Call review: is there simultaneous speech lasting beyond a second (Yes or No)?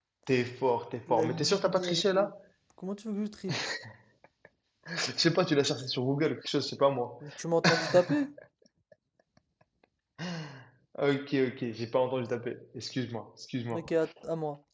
Yes